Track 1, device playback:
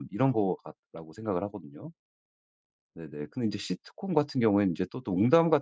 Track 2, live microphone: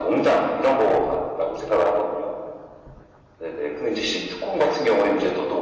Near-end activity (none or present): none